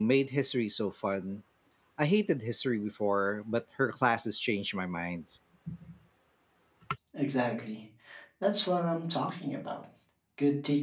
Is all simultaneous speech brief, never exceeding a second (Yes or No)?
Yes